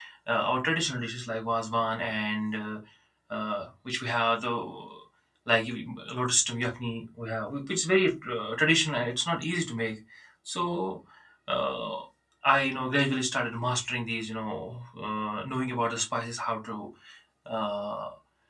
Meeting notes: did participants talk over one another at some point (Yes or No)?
No